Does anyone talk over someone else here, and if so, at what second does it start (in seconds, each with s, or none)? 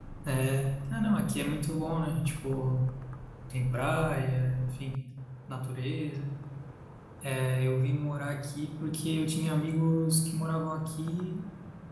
none